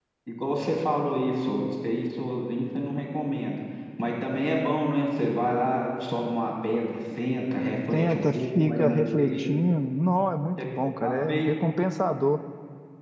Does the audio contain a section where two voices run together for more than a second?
Yes, from 7.9 s

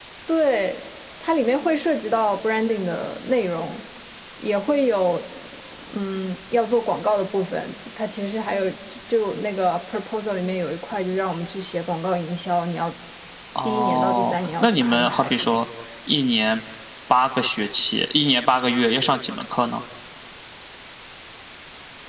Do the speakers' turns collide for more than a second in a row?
Yes, from 13.7 s

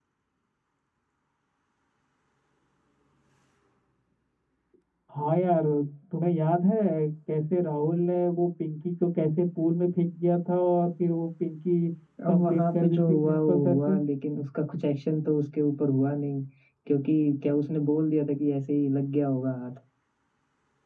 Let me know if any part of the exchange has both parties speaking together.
Yes, from 12.3 s

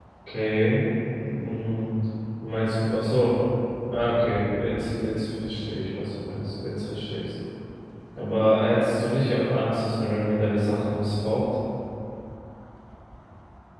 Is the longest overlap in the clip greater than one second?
No

